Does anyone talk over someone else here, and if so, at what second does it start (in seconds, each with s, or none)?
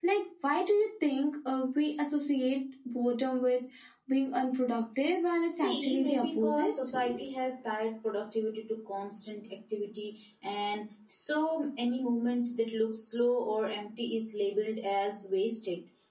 5.5 s